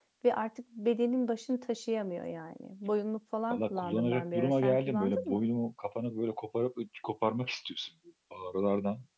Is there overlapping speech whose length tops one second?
Yes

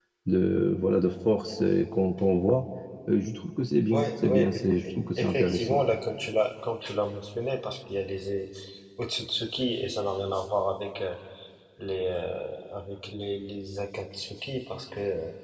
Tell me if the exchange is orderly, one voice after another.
No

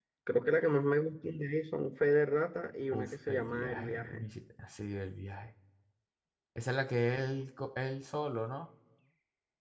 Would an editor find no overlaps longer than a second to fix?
No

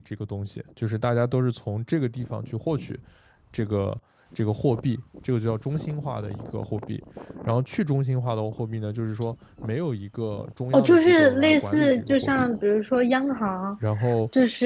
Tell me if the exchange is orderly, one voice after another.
No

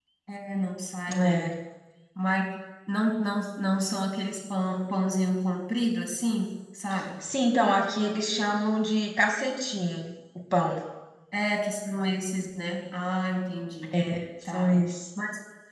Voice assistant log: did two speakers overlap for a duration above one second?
No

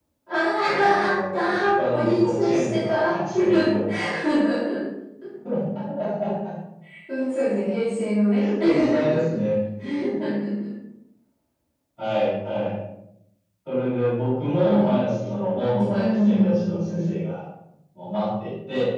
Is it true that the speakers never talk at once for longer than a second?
No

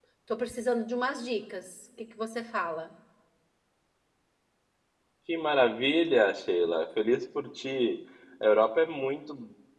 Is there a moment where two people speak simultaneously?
No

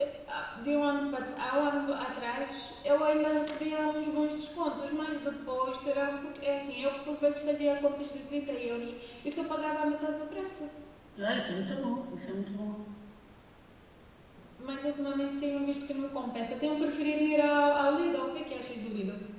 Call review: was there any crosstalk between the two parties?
No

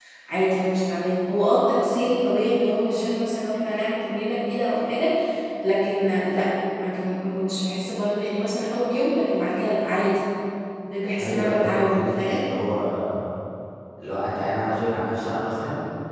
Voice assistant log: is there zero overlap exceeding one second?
No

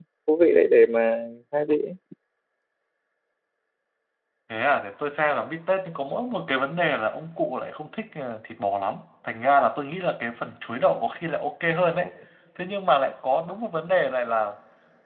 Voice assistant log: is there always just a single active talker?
Yes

